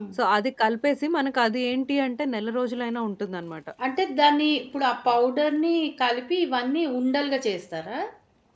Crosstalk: none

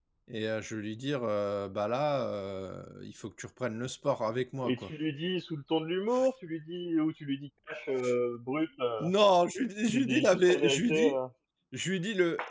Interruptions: present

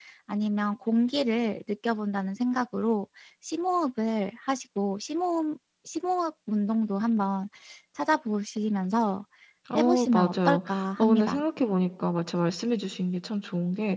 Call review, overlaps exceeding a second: present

